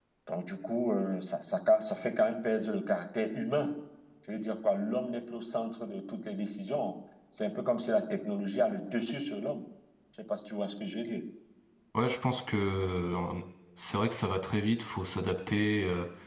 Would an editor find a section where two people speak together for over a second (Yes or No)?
No